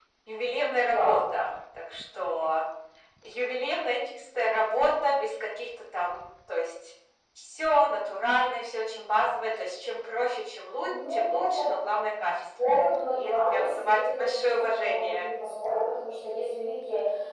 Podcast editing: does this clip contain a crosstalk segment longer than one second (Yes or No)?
Yes